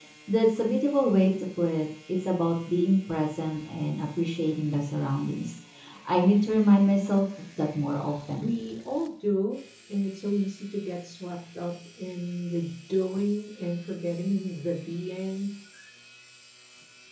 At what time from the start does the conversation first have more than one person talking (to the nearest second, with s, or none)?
none